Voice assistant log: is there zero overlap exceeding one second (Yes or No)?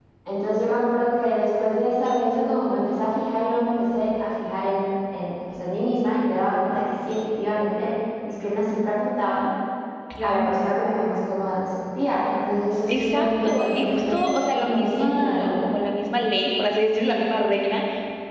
No